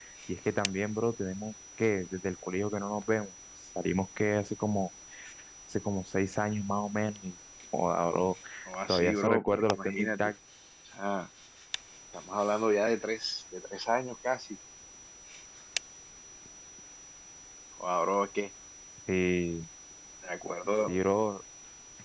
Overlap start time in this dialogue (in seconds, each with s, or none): 8.9 s